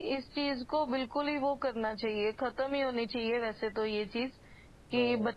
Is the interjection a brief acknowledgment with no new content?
Yes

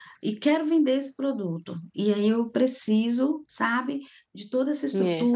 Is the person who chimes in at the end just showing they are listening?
Yes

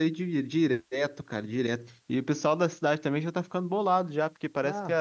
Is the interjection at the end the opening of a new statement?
No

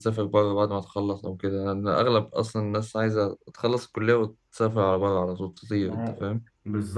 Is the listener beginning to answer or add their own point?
Yes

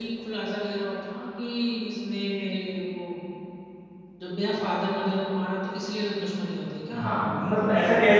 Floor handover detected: Yes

